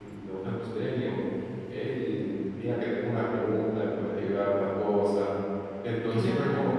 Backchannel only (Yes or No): Yes